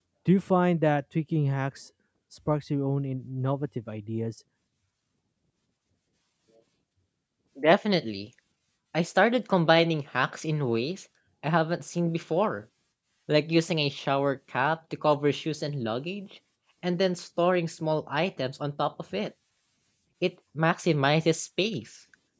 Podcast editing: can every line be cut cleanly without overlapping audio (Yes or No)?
Yes